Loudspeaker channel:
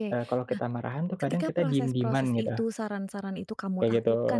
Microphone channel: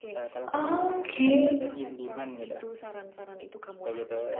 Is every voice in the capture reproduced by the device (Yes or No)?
No